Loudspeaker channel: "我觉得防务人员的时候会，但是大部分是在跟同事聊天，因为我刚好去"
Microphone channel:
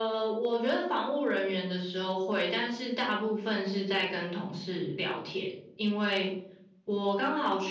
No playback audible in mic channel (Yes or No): No